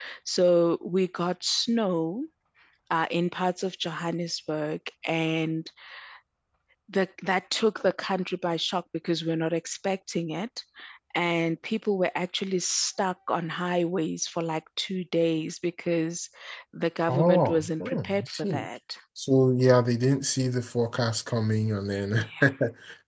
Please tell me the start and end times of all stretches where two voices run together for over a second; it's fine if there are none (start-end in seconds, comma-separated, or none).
17.1-18.7